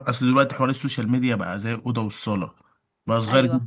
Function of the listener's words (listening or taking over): listening